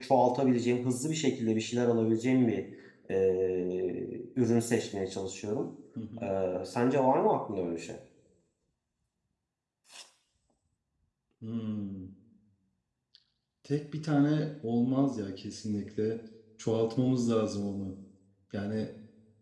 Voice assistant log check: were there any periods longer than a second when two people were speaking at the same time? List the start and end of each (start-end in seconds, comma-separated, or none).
none